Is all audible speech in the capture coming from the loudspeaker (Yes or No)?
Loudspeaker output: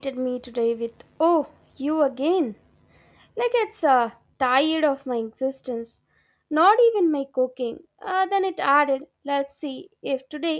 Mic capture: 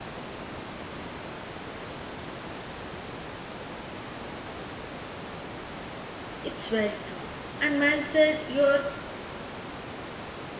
No